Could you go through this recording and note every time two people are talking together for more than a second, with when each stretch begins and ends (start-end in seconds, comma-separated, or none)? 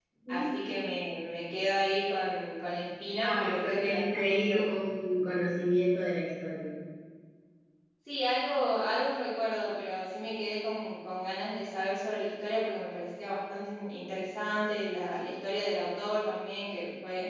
3.2-4.6